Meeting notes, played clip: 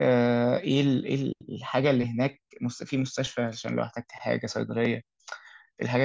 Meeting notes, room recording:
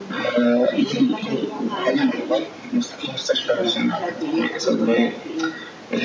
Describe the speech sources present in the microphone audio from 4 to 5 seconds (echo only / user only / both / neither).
both